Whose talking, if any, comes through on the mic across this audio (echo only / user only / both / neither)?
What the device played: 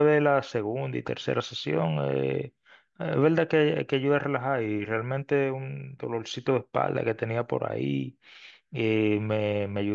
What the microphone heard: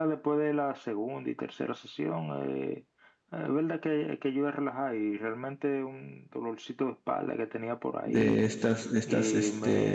both